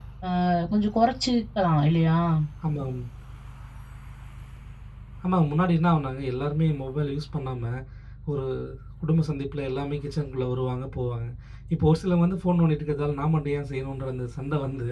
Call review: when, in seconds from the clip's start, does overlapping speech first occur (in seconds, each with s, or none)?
none